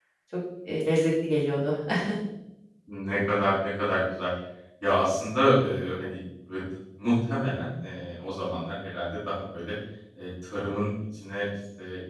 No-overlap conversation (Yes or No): Yes